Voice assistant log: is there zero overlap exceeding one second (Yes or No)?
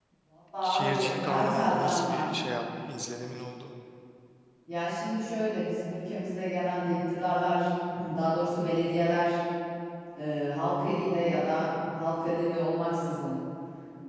No